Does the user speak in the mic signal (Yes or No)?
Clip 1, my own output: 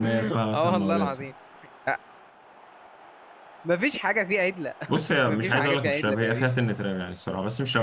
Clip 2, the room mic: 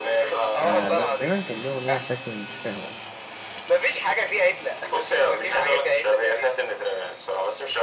Yes